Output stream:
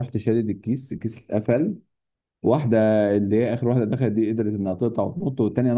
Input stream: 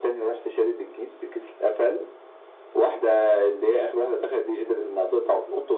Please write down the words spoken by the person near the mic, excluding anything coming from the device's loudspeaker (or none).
none